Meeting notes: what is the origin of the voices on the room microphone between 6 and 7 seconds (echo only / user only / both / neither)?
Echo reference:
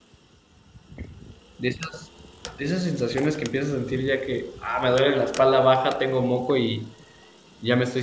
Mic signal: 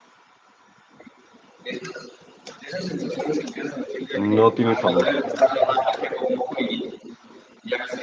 echo only